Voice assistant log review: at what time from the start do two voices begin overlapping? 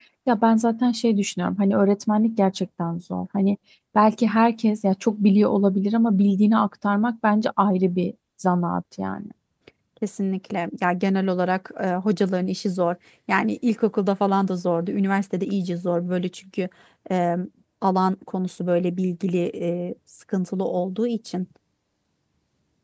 none

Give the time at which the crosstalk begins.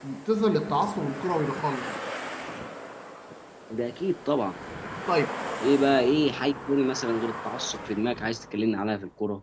none

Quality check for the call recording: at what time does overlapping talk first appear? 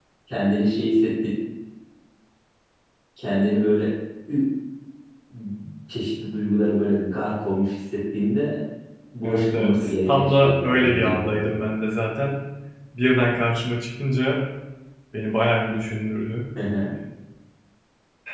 9 s

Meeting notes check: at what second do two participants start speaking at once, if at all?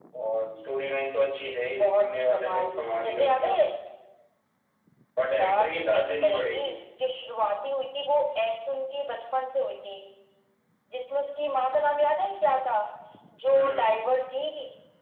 2 s

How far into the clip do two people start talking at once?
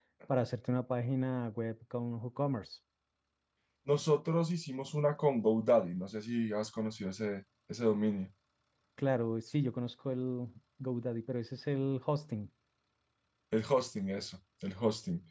none

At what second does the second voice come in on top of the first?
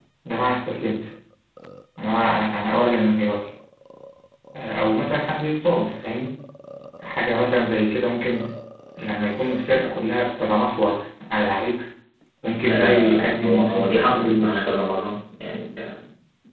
13 s

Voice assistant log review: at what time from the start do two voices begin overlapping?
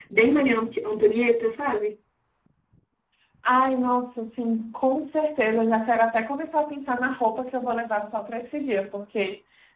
none

